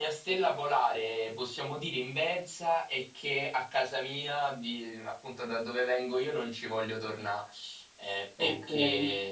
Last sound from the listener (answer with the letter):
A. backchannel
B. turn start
A